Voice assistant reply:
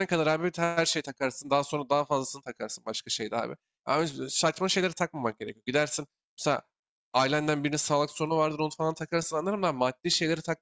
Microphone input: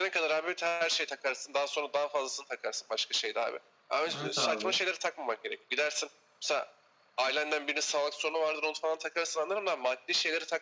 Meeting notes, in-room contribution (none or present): present